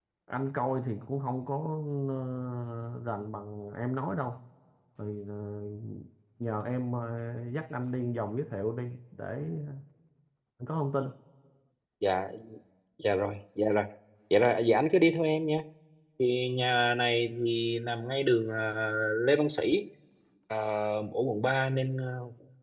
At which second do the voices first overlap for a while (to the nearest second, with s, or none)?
none